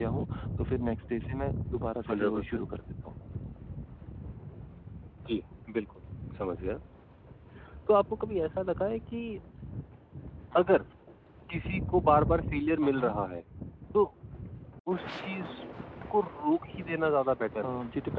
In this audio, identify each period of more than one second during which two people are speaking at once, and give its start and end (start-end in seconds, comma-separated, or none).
none